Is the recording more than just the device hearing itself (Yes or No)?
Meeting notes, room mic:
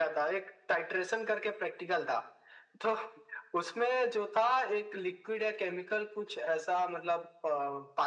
No